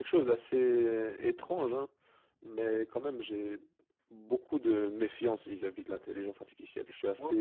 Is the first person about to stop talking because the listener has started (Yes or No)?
No